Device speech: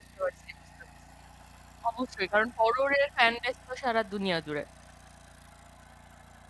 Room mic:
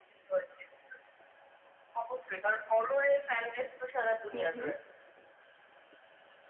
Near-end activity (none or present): present